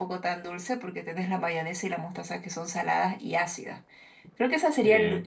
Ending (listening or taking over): listening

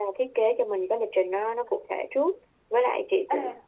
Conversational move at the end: listening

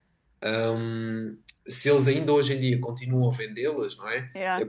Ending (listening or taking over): listening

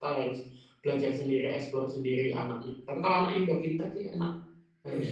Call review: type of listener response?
taking over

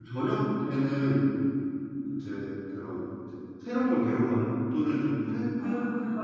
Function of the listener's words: listening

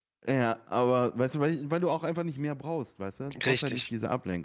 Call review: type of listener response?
listening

